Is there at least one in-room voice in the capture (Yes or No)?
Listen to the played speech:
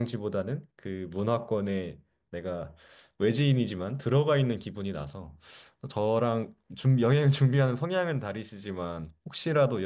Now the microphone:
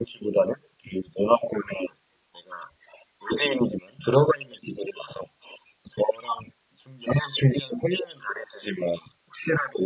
No